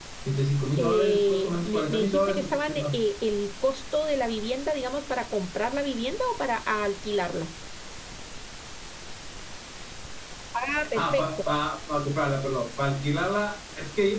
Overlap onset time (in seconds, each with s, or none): 0.8 s